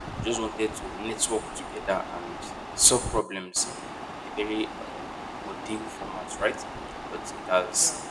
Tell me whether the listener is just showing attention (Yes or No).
Yes